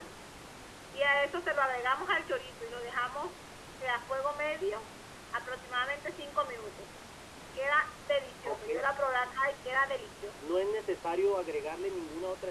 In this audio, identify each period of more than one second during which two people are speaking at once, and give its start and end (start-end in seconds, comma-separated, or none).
none